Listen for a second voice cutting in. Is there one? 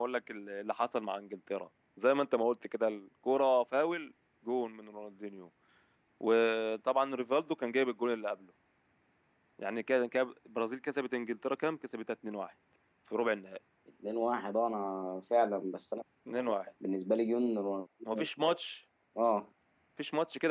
No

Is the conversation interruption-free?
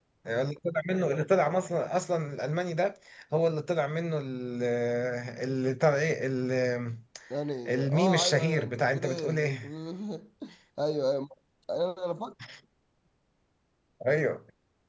No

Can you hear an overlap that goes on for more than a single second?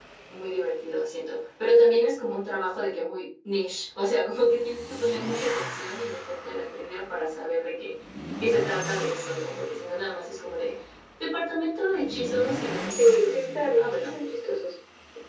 Yes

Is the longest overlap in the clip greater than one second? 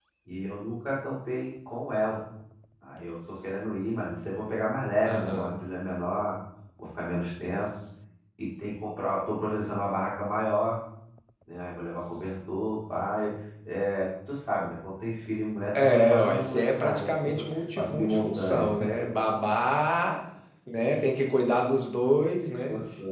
Yes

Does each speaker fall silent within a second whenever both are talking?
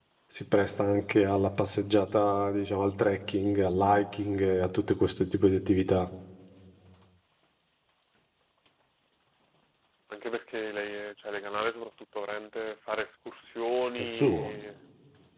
Yes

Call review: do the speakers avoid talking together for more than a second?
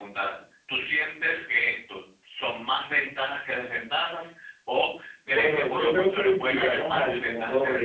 No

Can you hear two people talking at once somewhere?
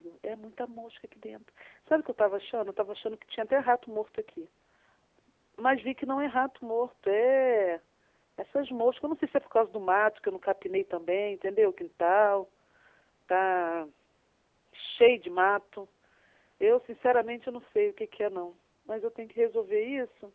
No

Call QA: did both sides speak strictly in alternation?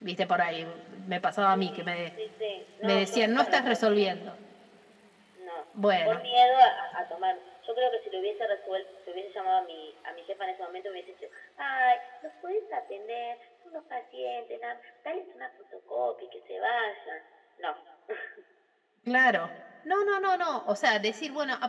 No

